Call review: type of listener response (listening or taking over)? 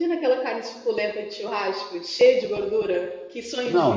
taking over